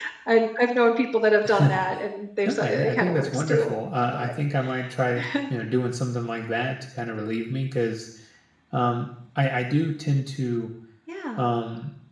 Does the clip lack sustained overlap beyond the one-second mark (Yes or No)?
No